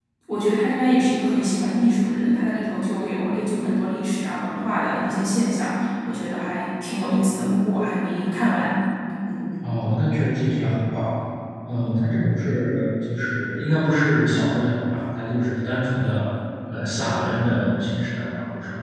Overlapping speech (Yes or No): No